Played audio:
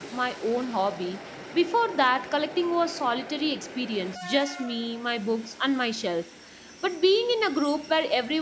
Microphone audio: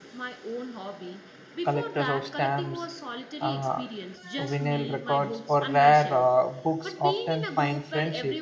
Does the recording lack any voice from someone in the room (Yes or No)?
No